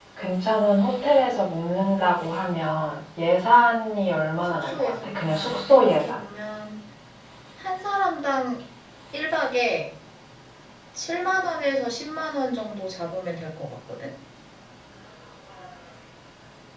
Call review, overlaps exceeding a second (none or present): present